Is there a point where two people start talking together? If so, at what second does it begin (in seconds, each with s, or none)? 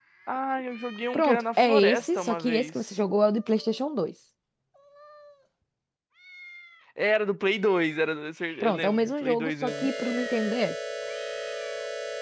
1.1 s